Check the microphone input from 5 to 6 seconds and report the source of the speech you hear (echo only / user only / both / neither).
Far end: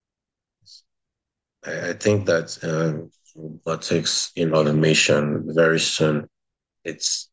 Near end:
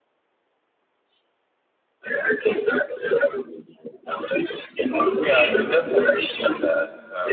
both